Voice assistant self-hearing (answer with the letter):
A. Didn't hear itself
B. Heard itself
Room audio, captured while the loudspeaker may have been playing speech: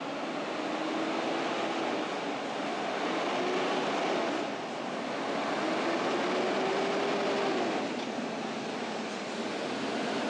A